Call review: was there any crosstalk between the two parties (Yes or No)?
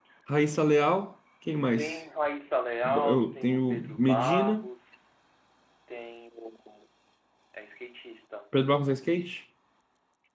Yes